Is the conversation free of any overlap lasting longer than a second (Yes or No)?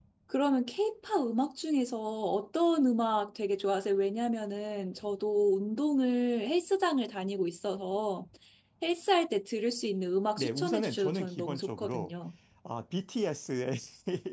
No